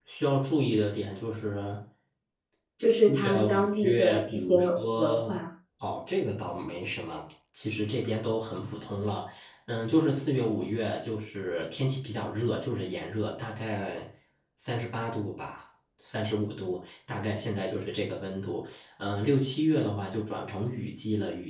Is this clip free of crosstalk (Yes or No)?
No